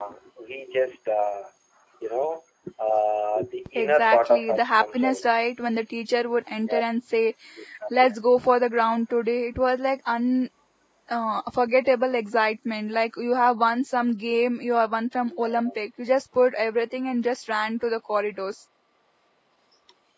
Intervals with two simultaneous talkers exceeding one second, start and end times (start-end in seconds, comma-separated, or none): 3.8-5.2